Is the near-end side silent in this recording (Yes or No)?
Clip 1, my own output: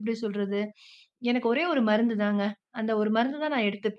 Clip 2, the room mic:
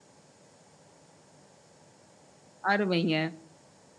No